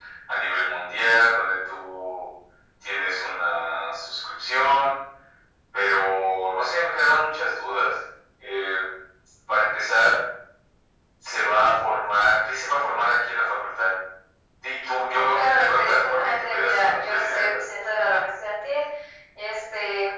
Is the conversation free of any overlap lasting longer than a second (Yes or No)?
No